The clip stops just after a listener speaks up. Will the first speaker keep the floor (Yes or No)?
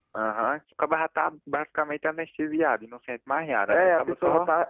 No